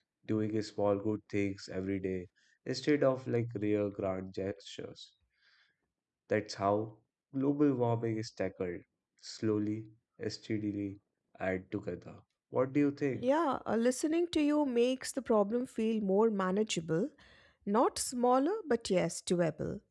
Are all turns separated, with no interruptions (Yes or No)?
Yes